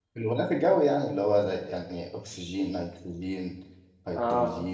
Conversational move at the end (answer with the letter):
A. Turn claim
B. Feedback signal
A